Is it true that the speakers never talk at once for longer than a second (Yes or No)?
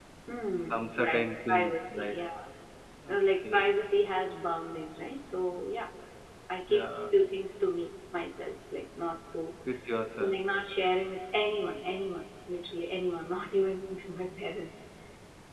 No